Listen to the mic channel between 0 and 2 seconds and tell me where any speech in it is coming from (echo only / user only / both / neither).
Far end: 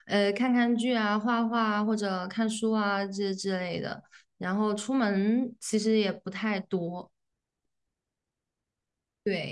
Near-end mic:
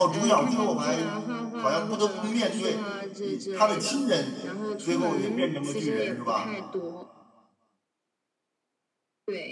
both